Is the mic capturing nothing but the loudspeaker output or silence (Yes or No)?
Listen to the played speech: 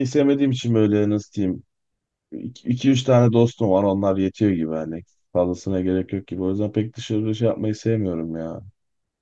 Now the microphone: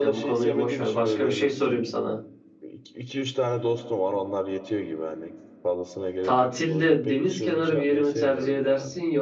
No